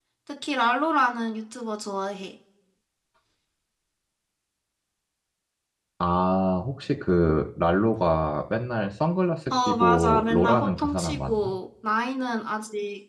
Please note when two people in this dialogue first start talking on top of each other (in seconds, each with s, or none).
9.5 s